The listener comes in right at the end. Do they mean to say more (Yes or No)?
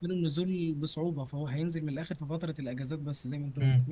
Yes